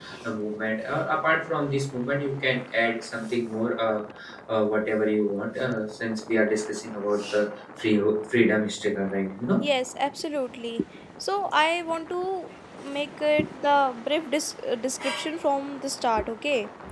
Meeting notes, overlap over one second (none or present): none